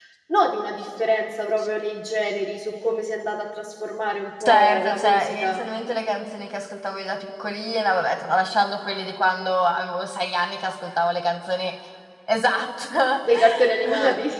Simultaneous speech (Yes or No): Yes